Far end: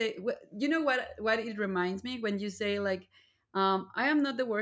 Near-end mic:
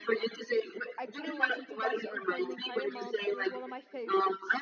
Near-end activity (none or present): present